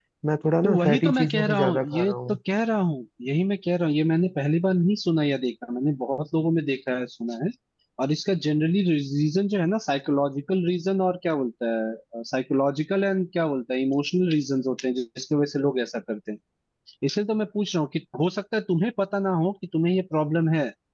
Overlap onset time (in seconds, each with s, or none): 0.6 s